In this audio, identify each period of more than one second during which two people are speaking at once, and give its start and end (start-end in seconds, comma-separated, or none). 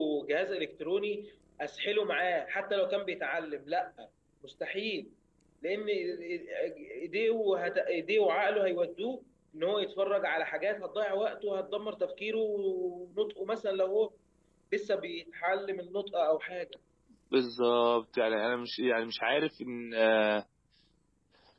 none